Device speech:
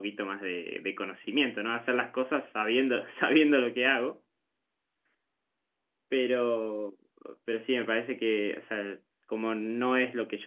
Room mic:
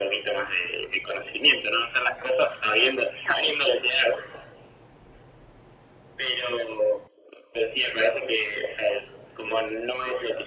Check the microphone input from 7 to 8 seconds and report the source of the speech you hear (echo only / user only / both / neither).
echo only